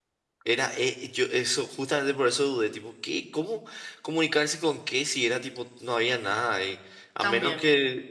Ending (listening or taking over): listening